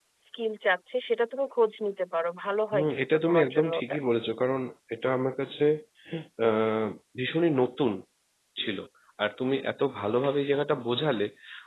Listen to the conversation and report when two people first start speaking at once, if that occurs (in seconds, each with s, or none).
2.7 s